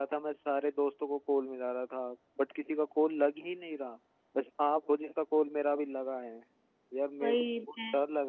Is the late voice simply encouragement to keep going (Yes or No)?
Yes